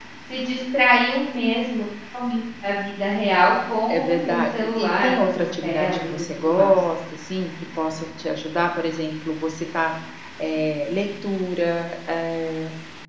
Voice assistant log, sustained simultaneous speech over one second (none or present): present